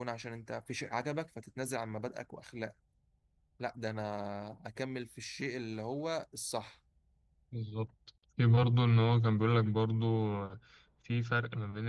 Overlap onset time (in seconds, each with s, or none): none